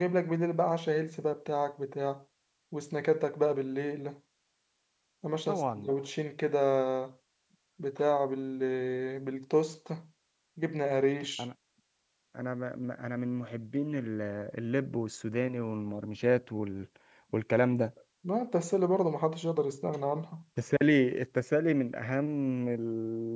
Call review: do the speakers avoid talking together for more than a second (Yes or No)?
Yes